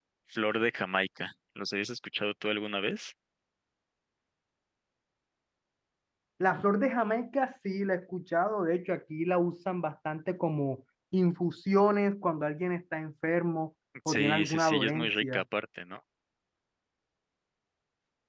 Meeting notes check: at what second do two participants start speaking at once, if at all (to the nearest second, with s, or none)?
14 s